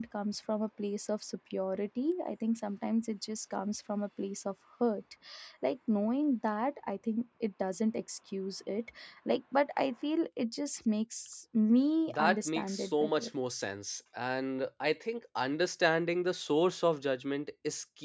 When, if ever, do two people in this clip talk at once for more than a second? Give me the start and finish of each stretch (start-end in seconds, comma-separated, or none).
12.1-13.3